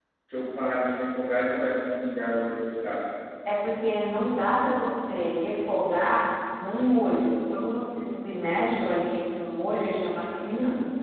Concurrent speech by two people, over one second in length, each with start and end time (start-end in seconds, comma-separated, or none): none